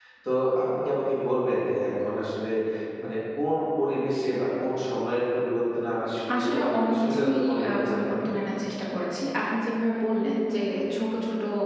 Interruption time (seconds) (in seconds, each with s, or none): 6.3 s